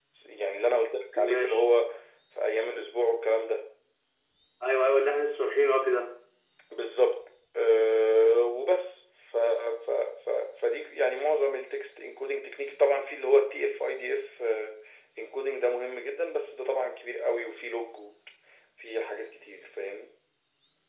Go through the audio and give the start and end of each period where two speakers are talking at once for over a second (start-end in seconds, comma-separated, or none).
none